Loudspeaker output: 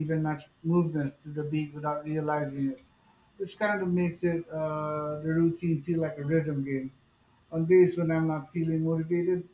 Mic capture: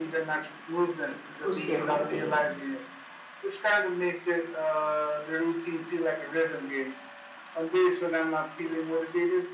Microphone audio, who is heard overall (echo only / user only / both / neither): both